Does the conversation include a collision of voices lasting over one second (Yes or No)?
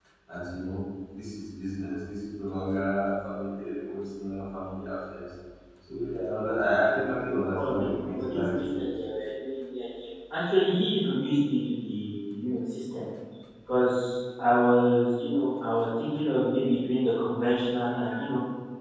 Yes